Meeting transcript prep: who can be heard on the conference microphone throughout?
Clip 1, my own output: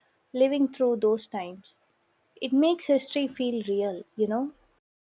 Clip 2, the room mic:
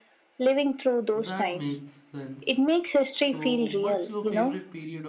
both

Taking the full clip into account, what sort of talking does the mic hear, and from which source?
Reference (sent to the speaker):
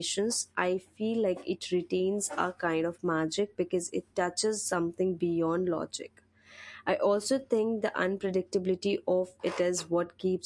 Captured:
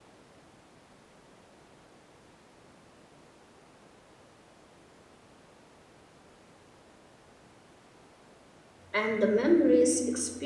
user only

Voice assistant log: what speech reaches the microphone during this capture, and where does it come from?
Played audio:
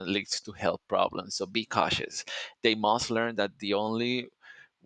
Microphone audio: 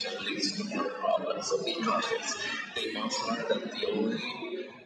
echo only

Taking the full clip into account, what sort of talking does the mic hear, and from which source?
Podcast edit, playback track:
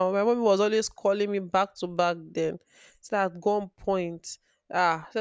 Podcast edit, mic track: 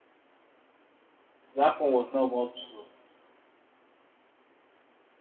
user only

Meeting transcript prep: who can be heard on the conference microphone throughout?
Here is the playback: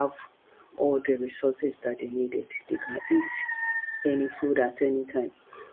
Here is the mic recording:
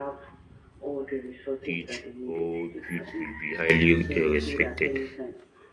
both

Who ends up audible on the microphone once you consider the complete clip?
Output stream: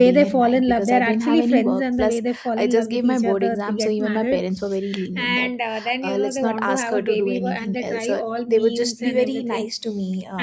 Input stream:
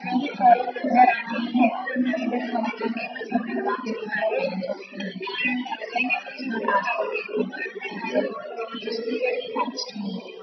echo only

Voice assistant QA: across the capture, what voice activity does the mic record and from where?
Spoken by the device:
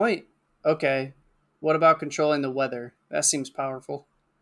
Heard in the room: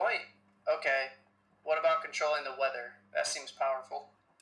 echo only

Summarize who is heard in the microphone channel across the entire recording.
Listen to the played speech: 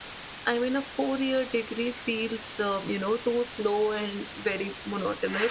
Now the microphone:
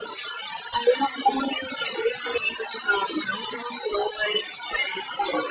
echo only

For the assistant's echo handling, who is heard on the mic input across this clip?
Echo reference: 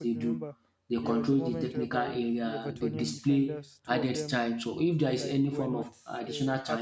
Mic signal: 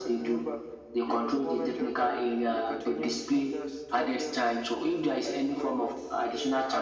echo only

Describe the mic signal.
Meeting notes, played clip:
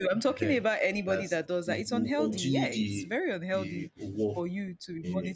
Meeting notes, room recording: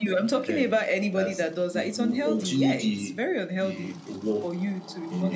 echo only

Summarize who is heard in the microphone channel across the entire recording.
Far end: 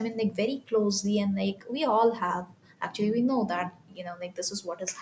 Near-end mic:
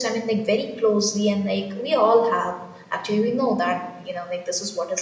echo only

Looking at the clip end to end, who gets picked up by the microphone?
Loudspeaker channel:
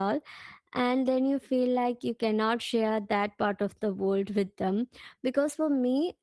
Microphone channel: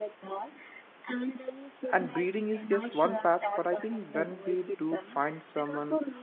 both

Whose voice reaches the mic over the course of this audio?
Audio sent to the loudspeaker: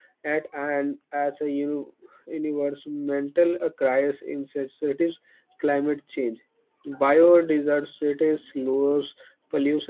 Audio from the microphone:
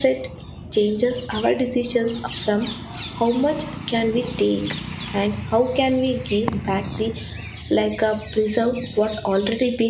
user only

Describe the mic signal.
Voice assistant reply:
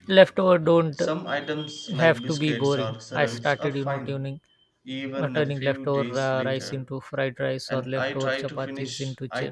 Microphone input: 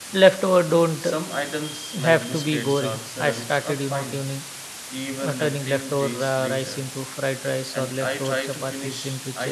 echo only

